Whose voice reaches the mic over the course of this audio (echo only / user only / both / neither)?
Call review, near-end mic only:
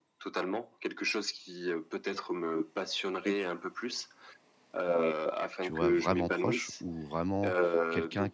both